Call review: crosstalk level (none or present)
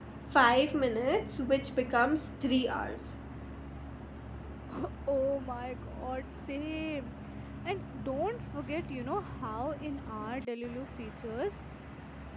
none